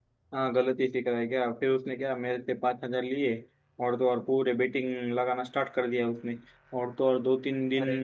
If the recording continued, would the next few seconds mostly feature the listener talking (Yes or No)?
No